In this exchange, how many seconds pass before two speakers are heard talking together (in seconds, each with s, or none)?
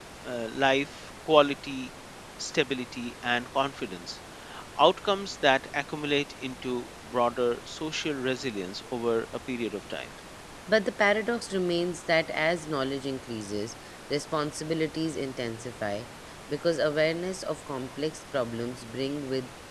none